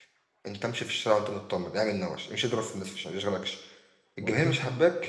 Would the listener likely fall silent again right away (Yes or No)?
Yes